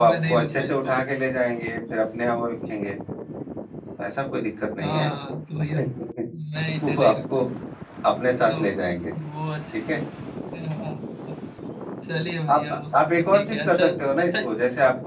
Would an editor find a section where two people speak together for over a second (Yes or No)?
Yes